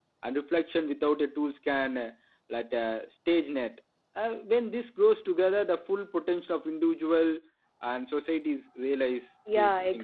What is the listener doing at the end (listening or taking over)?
taking over